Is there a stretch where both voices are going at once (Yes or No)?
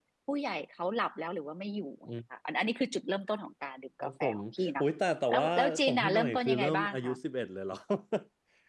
Yes